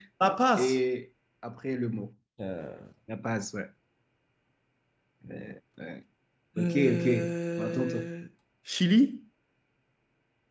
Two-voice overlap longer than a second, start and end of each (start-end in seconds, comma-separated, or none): 6.6-7.9